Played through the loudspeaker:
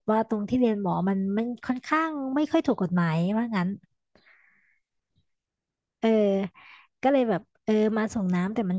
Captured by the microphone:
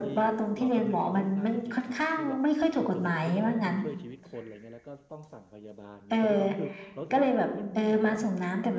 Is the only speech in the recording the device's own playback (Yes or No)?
No